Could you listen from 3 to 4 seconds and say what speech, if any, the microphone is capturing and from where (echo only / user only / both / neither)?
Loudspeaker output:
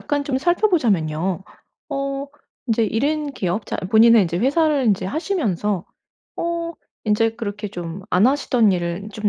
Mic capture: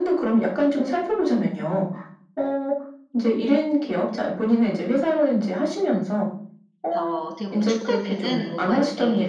echo only